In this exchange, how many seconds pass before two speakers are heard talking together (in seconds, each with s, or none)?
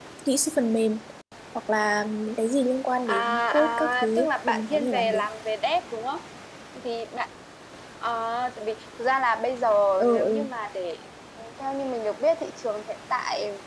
3.1 s